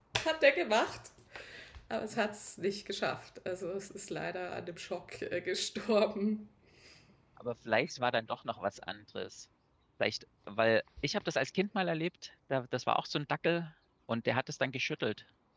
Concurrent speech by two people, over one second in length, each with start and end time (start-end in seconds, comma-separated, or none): none